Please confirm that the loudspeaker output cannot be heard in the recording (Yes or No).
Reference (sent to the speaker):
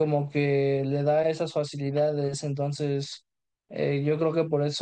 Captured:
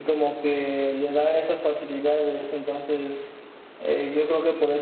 No